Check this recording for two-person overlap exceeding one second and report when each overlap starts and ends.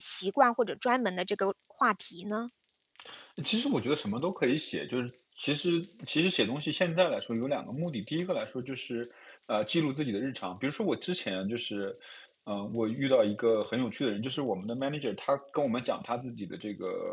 none

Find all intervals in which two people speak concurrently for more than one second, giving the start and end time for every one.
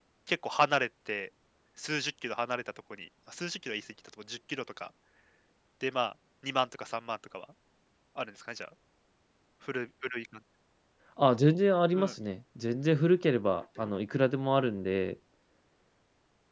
none

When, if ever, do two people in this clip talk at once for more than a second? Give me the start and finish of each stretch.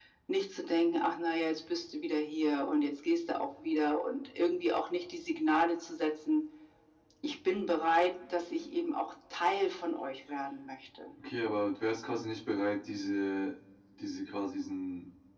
none

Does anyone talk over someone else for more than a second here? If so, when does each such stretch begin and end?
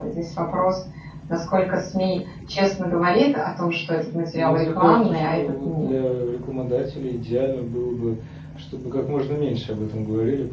4.3-5.9

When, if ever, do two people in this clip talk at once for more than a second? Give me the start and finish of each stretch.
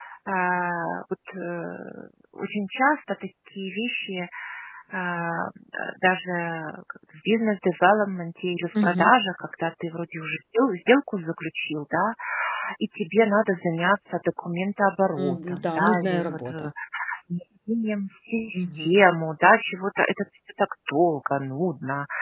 15.2-16.7

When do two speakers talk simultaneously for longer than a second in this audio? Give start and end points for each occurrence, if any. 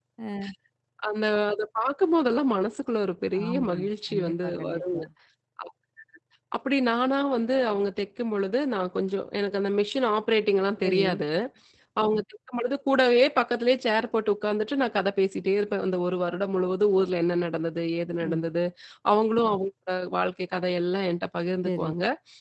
3.4-5.0

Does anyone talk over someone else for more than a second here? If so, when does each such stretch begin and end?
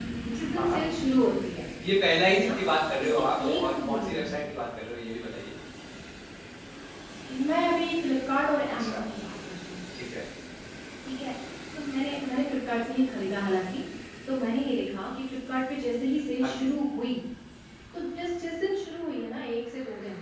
3.0-4.3

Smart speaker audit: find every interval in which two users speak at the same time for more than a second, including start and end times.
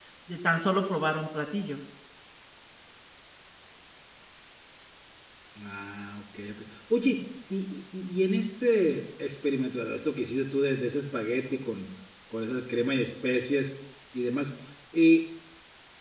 none

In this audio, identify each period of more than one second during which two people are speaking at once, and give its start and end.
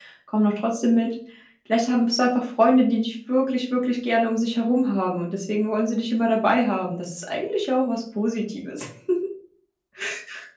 none

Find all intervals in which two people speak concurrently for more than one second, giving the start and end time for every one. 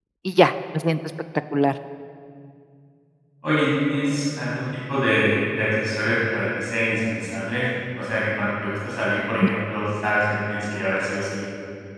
none

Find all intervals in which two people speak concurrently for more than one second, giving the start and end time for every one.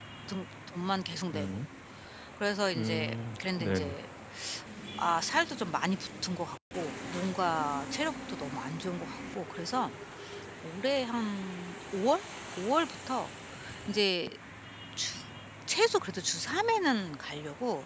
2.8-4.0

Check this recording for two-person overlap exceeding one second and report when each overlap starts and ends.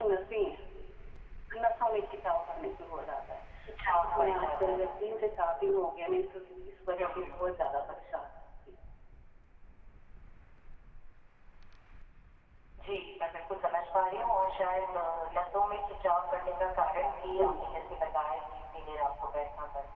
3.9-5.3

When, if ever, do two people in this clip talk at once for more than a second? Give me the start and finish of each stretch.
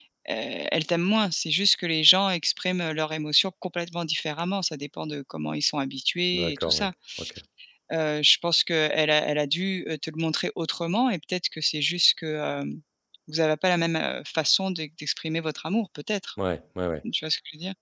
none

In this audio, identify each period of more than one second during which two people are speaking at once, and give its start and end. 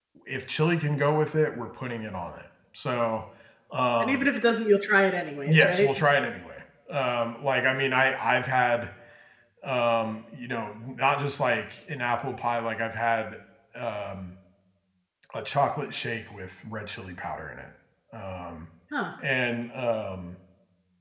none

